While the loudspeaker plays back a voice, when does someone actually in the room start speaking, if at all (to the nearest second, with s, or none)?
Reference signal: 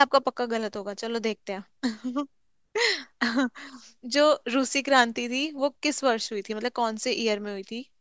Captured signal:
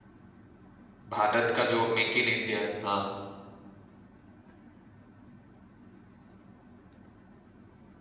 1 s